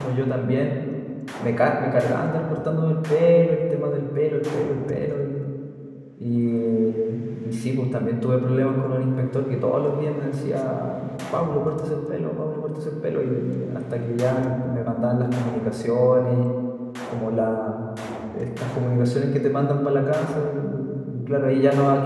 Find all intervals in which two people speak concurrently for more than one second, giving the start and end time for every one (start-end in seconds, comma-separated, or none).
none